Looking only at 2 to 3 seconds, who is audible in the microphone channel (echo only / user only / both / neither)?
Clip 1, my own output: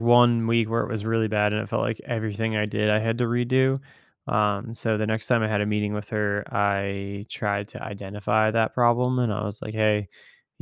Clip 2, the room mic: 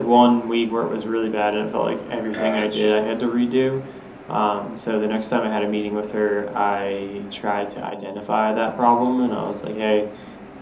both